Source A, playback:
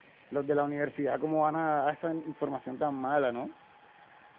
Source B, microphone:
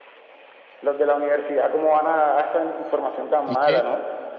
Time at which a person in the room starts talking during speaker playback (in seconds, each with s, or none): 3.5 s